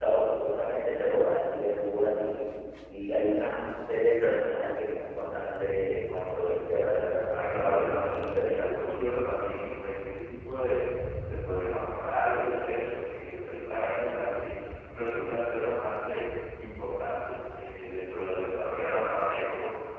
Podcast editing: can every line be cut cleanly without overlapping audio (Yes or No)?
No